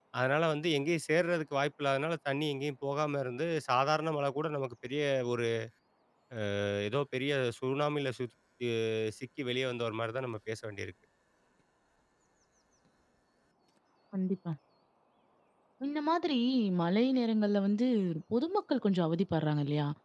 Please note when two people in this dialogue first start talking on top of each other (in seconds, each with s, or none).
none